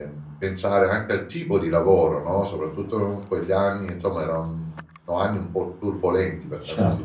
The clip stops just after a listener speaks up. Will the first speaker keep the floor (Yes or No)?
No